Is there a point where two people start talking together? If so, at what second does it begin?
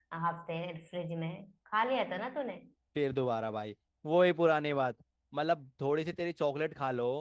none

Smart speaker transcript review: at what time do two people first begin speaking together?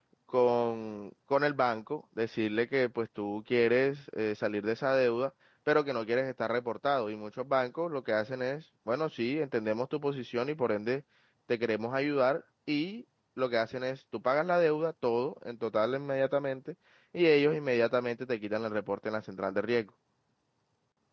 none

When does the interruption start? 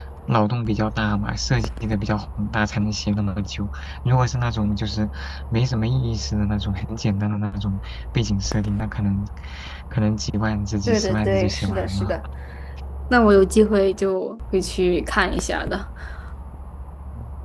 10.9 s

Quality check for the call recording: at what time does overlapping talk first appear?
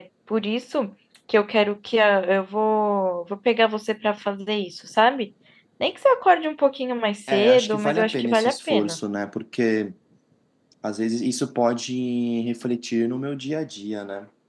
7.3 s

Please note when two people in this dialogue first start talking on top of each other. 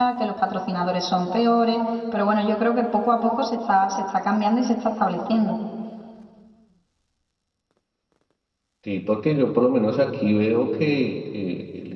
none

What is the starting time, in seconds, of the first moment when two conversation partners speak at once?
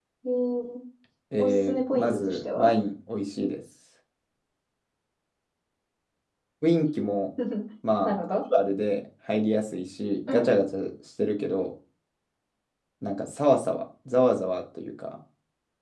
1.4 s

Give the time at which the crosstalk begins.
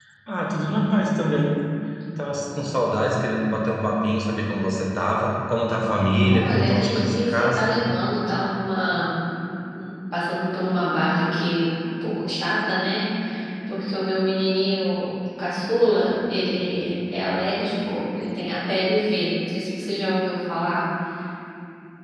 6.3 s

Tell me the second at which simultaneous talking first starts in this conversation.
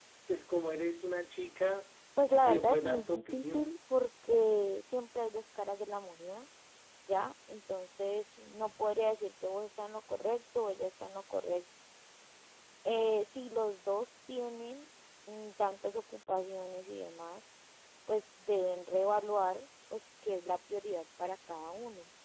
2.4 s

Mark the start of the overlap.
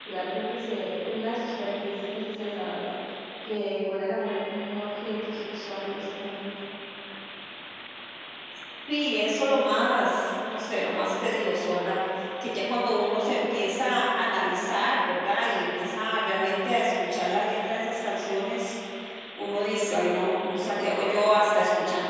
none

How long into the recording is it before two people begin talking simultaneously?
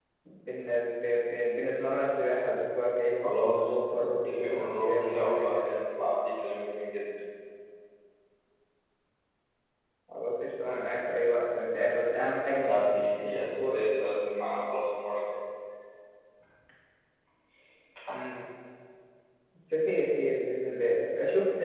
3.2 s

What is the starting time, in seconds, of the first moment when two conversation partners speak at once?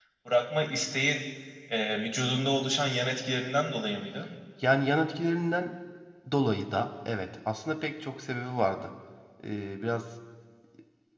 none

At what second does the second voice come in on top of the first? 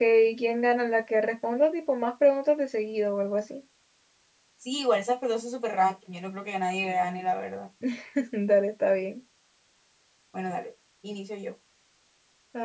none

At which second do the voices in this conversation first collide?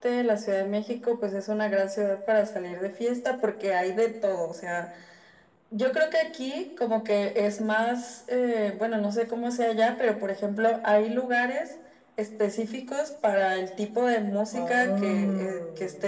14.5 s

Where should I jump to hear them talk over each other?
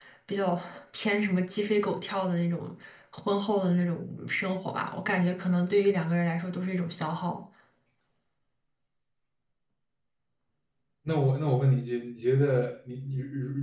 none

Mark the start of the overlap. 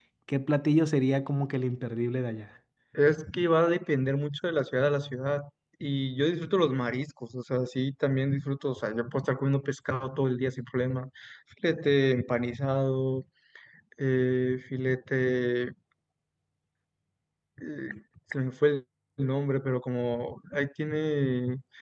none

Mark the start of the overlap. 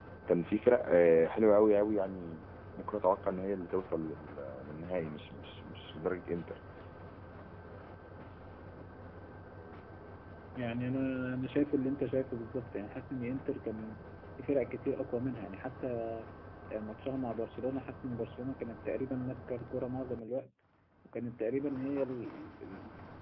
none

